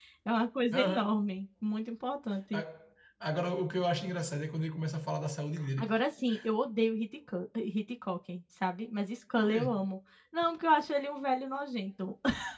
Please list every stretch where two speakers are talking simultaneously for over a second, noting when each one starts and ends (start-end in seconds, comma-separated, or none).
none